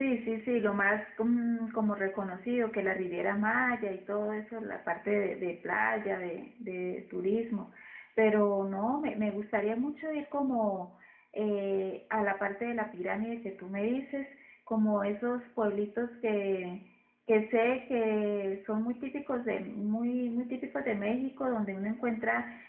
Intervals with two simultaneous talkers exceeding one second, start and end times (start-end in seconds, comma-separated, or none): none